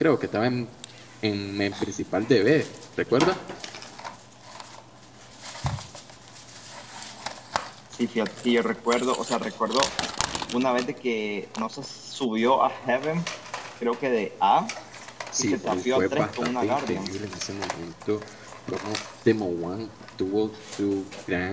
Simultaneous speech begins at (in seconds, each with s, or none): 15.4 s